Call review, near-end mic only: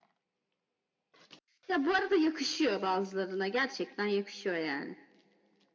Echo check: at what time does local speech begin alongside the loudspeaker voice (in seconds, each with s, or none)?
none